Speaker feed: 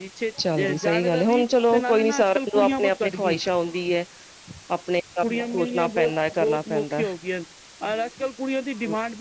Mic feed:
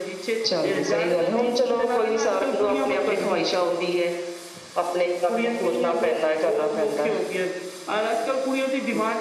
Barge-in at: none

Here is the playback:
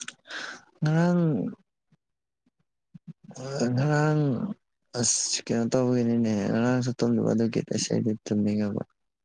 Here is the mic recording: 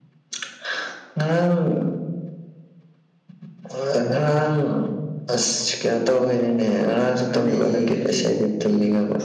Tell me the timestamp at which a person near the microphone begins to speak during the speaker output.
7.2 s

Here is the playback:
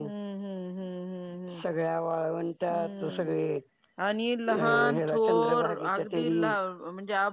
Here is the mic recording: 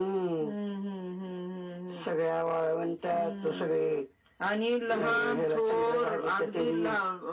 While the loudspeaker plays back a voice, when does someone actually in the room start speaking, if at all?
none

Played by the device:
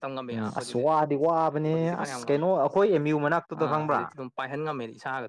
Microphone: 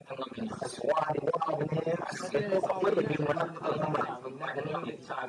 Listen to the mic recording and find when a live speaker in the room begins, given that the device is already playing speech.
2.2 s

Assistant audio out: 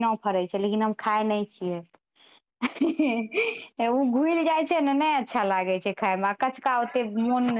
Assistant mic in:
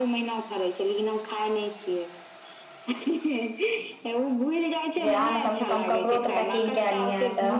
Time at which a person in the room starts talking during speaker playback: 5.0 s

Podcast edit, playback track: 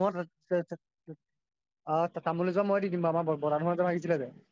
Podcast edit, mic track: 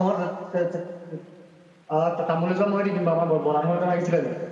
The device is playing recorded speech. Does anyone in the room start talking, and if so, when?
none

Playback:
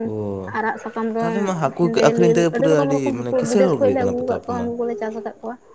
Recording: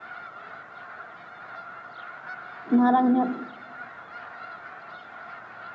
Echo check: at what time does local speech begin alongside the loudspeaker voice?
2.8 s

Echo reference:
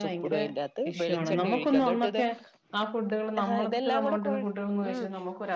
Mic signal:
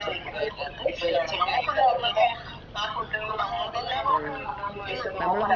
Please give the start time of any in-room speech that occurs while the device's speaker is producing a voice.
4.1 s

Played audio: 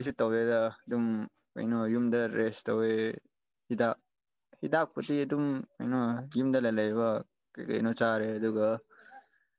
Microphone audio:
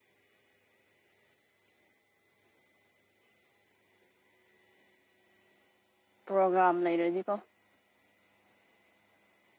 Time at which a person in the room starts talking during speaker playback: 6.2 s

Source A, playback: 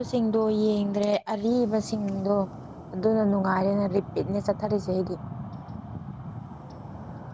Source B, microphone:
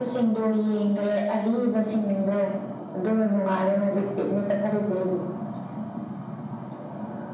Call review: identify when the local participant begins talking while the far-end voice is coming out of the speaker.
none

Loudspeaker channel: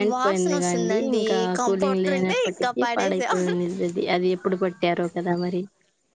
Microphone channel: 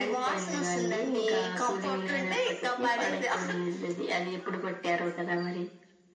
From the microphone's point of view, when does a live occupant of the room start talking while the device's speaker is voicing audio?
none

